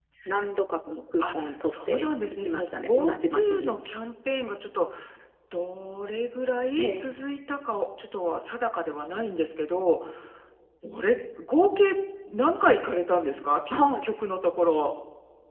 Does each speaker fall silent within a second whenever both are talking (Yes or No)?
No